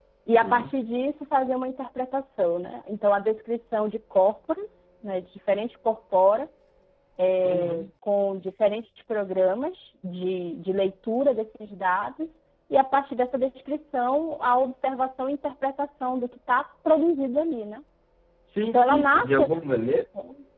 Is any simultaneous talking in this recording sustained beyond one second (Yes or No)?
Yes